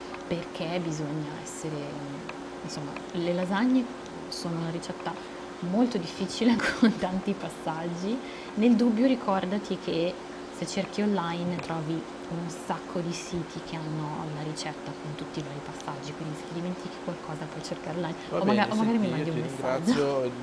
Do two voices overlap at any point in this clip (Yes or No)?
Yes